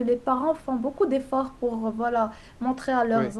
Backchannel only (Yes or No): Yes